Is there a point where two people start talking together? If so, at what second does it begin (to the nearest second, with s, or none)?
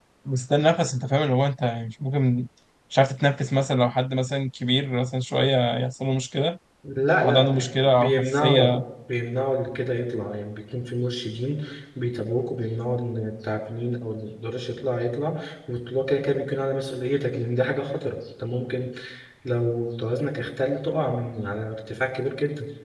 7 s